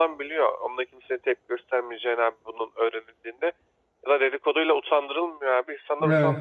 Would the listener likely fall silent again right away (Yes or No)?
Yes